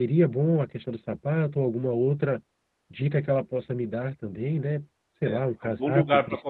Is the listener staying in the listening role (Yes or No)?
No